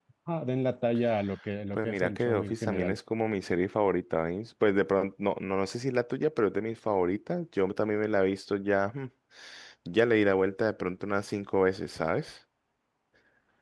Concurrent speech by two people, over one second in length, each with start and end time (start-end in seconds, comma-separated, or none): 1.8-3.0